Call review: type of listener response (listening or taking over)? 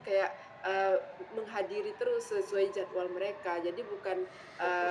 listening